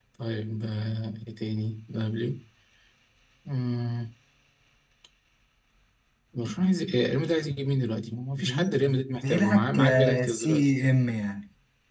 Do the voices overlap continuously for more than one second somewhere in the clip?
Yes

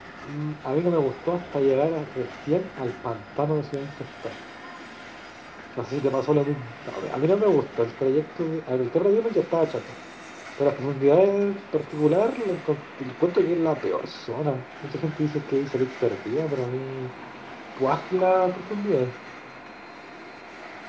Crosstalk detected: No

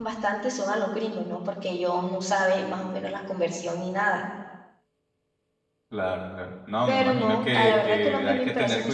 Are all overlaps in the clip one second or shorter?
No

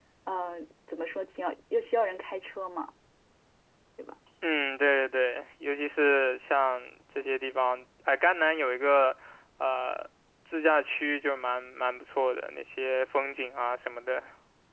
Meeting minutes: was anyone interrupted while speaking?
No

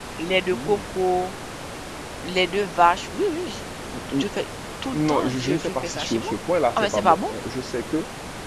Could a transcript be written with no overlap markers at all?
No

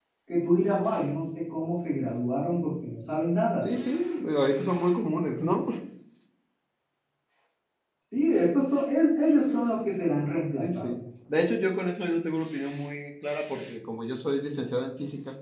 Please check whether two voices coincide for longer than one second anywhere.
No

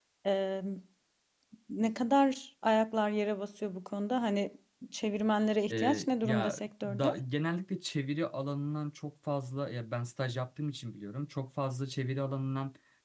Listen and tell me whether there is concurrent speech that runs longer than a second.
Yes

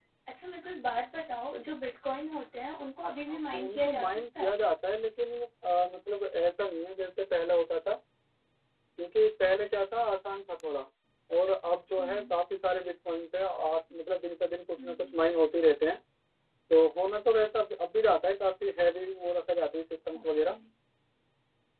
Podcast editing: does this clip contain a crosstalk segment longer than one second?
Yes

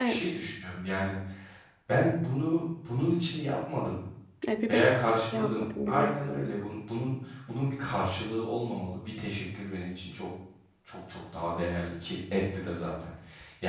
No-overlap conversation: No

